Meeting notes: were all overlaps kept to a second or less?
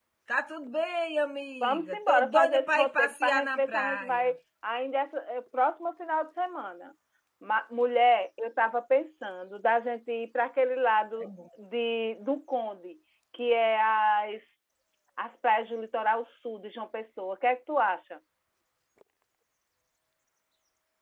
No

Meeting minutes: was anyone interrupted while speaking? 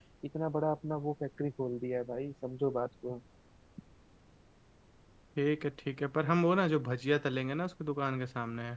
No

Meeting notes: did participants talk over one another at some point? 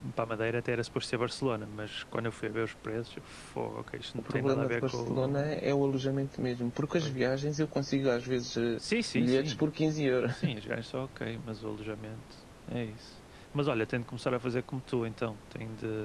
Yes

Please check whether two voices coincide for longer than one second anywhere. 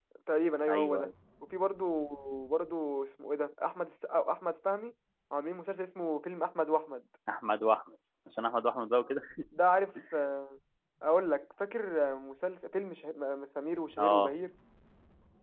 No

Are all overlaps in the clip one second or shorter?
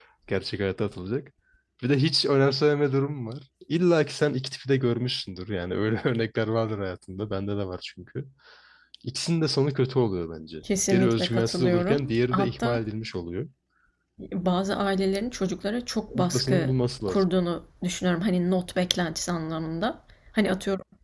No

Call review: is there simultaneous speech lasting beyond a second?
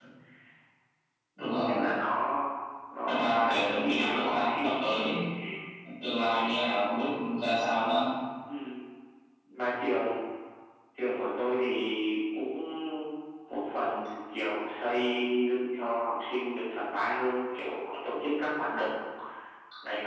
Yes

